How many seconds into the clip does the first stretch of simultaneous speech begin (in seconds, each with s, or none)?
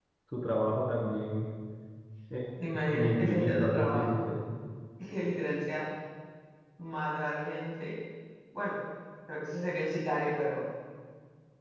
2.9 s